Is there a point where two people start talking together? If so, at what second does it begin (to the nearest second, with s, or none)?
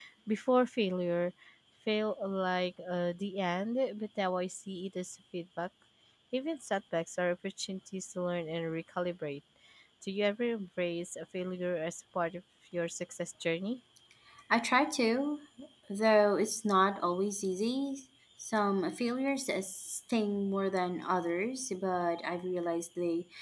none